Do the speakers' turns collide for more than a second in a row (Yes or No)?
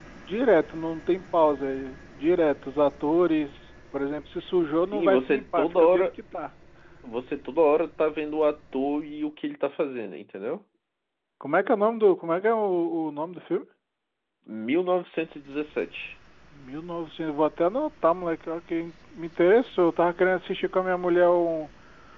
Yes